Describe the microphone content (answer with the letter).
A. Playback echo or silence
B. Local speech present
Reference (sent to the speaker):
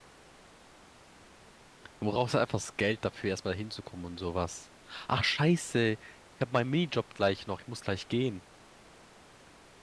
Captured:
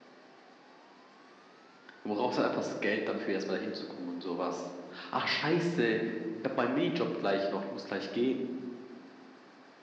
A